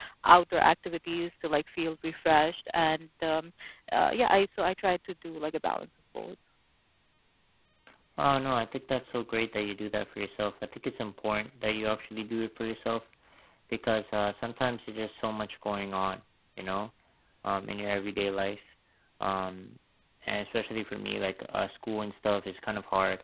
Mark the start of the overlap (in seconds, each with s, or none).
none